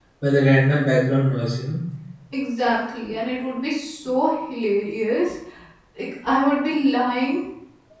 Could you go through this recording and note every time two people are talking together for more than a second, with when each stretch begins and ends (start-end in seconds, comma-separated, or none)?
none